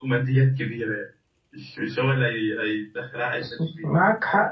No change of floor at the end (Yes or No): No